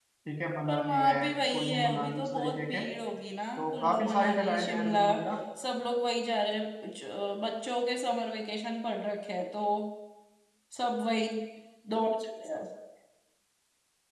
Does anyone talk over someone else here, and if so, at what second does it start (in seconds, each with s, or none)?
0.7 s